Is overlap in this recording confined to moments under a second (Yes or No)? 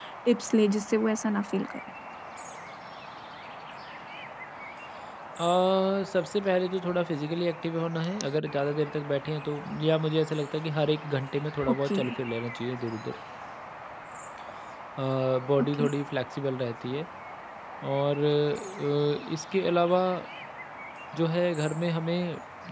Yes